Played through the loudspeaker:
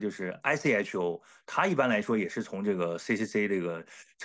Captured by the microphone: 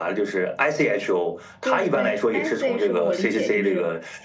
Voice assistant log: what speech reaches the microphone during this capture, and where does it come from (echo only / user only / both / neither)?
both